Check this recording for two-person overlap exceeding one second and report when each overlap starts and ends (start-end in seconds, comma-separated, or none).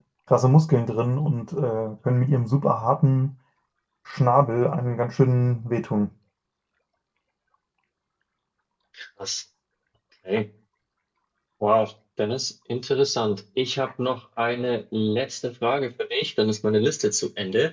none